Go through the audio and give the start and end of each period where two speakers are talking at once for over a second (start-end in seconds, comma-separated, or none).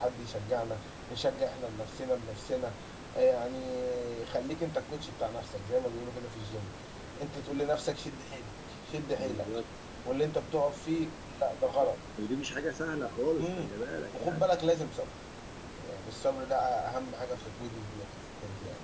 none